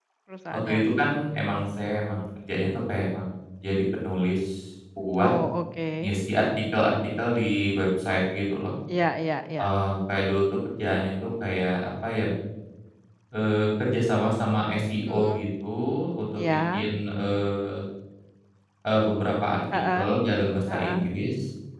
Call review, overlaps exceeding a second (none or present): none